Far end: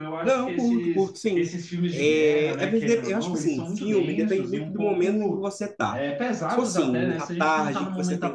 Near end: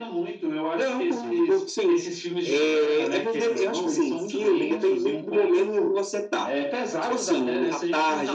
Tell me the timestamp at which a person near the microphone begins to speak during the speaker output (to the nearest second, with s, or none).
none